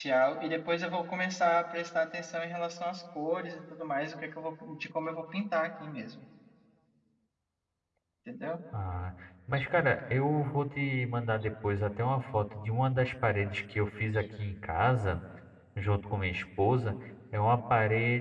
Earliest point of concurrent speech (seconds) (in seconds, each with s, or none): none